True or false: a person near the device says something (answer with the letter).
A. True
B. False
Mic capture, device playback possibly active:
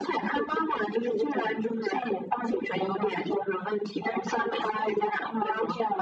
B